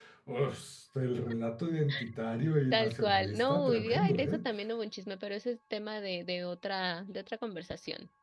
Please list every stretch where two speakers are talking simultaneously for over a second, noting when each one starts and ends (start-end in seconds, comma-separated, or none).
2.7-4.4